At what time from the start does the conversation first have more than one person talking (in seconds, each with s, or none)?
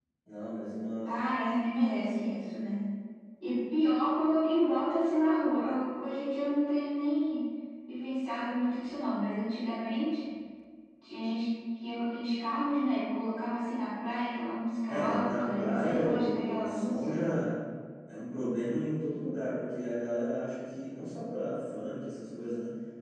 14.9 s